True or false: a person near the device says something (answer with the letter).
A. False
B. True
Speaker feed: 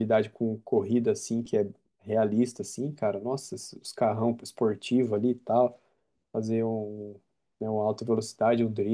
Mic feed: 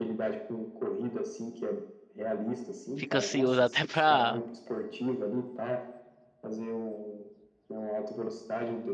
B